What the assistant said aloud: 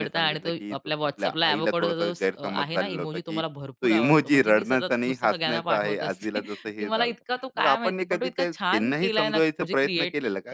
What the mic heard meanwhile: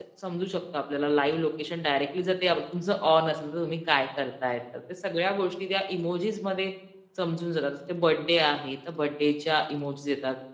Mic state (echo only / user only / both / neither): user only